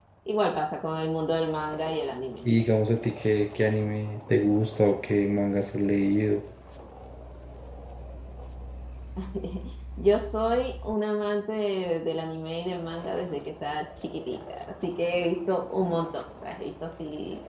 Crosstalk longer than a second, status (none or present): none